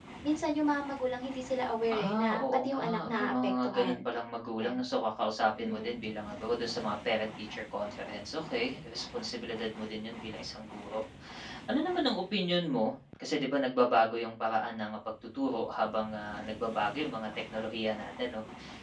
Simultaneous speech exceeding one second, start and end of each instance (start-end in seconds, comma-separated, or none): 1.9-4.0